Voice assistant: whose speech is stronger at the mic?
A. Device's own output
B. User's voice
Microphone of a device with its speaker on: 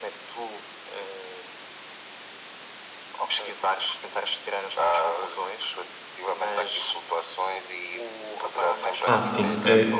B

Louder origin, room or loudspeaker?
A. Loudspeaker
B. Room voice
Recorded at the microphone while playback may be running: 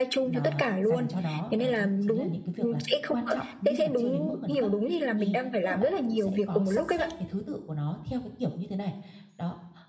A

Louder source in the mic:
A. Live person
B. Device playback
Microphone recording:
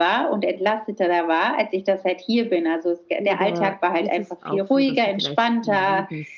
B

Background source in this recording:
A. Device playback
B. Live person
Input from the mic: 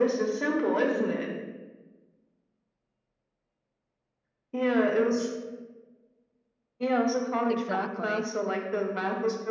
B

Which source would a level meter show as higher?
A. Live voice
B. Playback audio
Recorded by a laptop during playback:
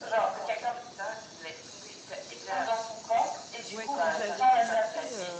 B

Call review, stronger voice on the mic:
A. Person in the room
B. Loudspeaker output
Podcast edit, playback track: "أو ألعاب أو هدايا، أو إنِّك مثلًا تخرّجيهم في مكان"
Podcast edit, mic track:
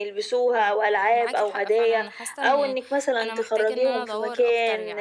B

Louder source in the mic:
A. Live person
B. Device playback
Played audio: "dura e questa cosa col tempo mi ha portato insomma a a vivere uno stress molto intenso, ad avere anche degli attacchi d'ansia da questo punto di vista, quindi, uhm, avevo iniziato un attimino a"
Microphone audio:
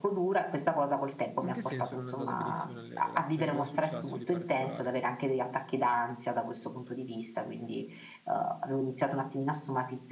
B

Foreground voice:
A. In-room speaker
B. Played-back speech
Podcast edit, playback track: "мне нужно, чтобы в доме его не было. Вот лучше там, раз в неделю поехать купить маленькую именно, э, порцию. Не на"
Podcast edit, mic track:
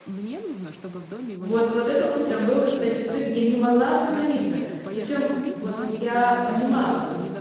A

